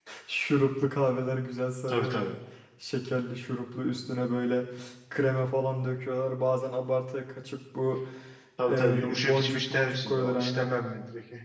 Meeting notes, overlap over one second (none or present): present